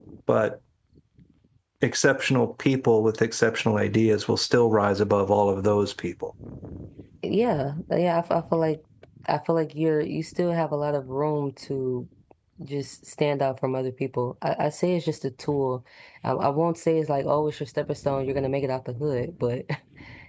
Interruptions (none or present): none